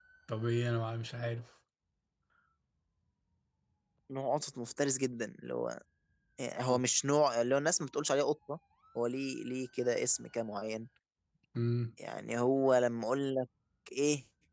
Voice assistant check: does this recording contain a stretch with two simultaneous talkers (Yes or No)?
No